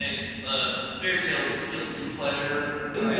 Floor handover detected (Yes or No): Yes